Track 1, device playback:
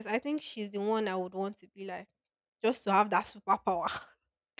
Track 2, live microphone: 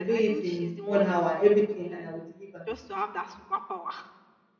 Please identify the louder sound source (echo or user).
user